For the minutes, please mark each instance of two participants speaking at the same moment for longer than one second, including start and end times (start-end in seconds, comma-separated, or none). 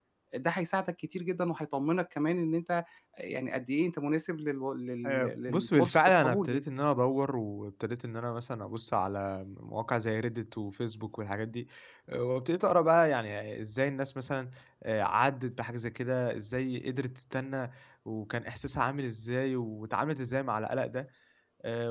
5.0-6.6